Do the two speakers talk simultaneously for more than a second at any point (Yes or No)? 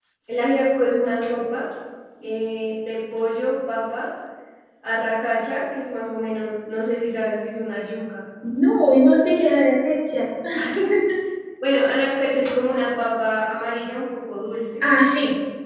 No